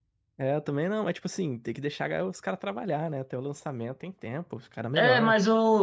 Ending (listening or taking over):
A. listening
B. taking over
B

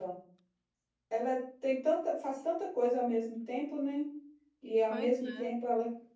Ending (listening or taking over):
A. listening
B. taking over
A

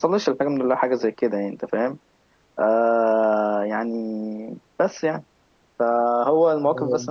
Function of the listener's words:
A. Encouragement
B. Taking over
A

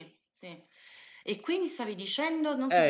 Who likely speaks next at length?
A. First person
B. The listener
B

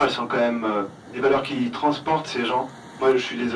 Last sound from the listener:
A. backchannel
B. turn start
A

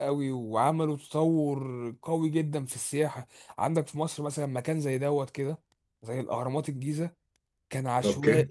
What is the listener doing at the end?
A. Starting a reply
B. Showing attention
B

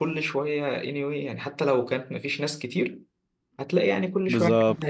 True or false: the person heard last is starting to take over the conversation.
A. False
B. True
B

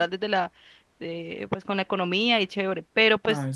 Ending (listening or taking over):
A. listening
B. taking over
A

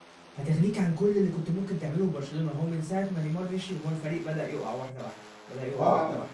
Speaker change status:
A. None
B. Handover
A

